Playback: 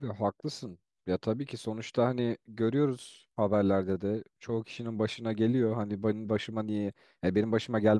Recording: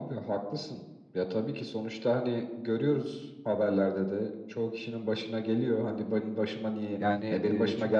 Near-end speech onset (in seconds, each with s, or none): 7.0 s